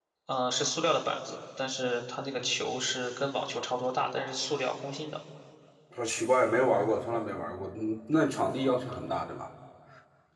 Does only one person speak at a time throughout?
Yes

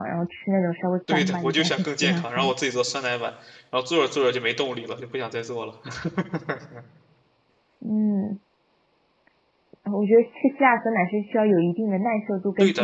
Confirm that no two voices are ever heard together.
No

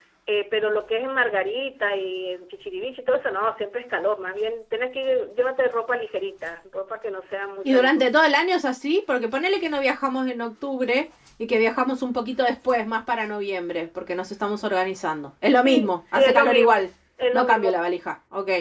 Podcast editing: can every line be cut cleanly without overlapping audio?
No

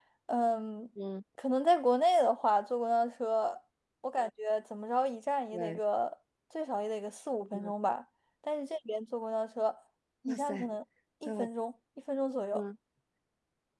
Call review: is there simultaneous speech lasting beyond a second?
No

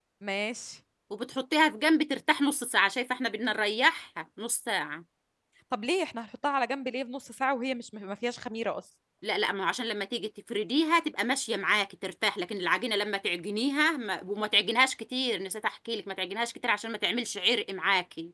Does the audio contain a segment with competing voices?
No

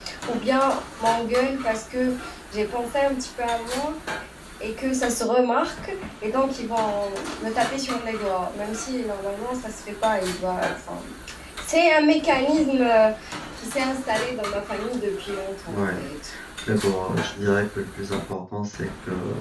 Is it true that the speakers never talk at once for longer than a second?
Yes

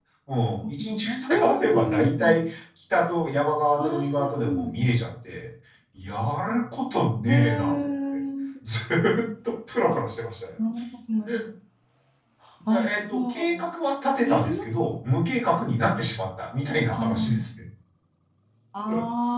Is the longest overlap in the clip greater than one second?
Yes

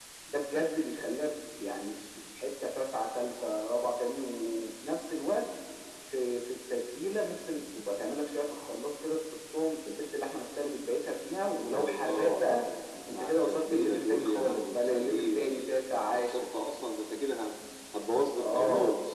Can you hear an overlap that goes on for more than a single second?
Yes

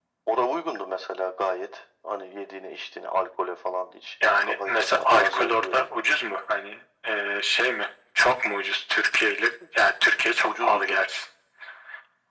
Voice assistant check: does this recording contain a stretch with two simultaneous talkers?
Yes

